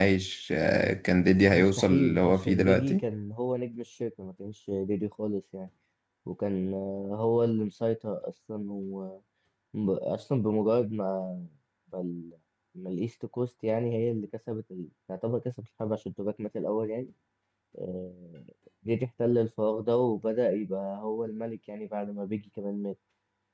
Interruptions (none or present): present